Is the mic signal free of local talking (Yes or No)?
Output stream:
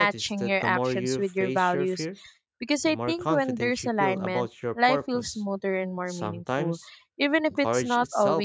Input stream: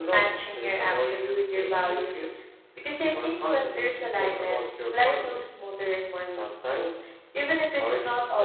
Yes